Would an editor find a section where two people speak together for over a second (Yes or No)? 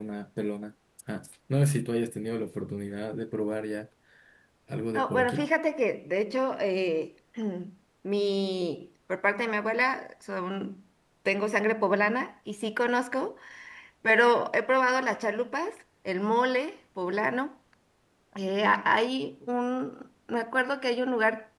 No